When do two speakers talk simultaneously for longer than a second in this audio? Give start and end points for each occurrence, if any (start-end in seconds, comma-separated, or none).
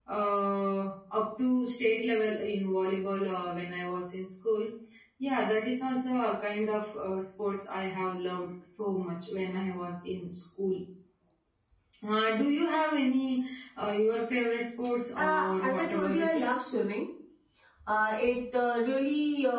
15.2-16.6